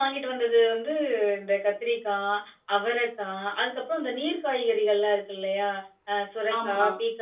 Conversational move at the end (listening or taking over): listening